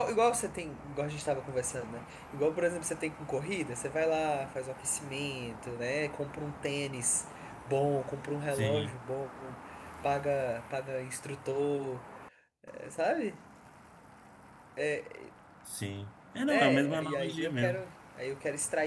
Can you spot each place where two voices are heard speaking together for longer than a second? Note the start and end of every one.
16.5-17.8

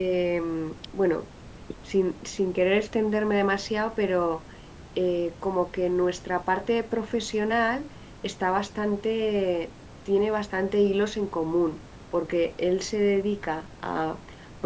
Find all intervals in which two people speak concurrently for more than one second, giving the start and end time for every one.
none

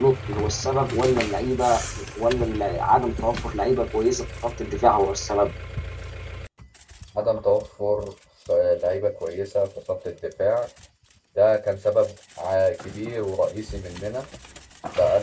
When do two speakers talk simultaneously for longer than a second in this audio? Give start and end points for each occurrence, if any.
none

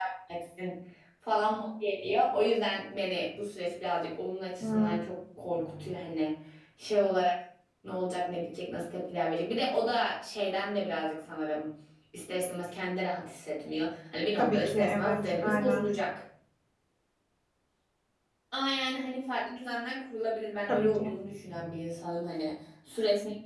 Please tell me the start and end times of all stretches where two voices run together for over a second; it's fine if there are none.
14.4-15.9

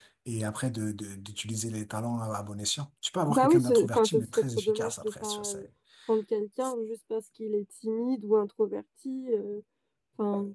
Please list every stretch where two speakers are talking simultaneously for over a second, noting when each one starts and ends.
3.3-5.6

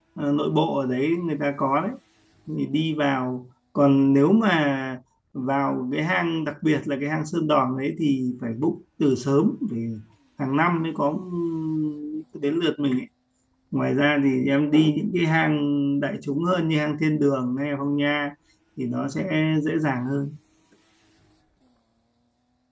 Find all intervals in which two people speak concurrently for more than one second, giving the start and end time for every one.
none

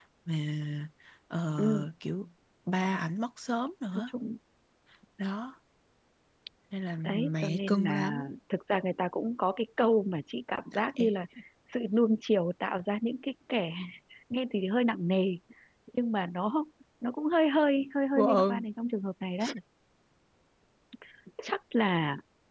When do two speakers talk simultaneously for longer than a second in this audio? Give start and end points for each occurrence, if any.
7.0-8.3

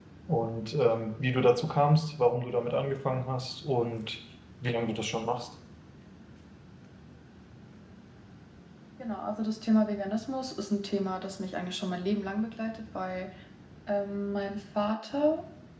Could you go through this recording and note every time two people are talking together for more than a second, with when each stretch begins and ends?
none

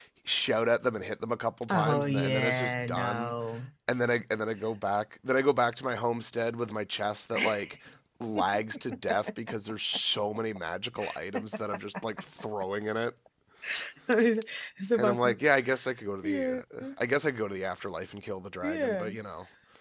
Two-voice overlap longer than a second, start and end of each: 1.7-3.4

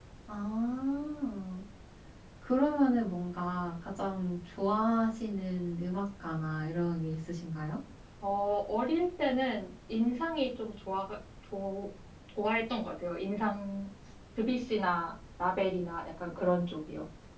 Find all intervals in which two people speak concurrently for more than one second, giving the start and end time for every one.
none

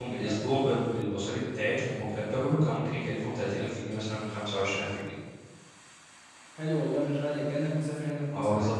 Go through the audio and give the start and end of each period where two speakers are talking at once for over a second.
none

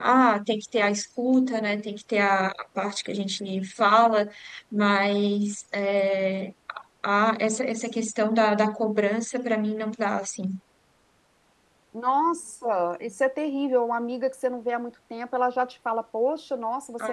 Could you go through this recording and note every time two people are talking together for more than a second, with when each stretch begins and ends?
none

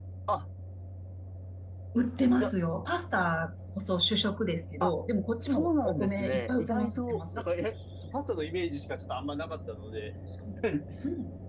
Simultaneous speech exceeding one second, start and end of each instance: 5.4-7.4

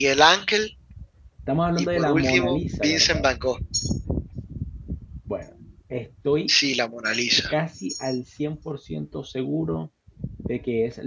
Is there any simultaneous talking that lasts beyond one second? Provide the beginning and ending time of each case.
1.8-3.3

